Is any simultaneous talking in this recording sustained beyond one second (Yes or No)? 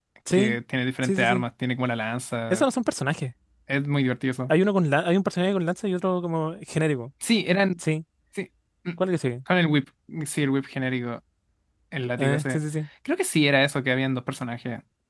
No